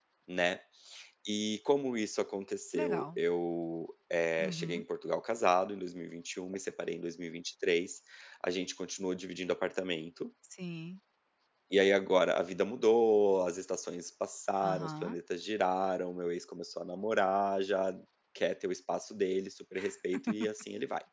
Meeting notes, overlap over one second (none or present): none